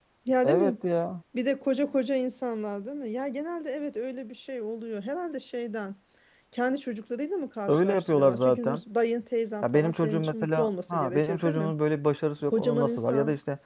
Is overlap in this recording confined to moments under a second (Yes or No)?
No